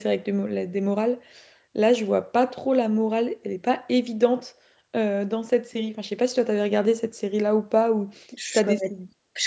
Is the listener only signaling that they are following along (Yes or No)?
No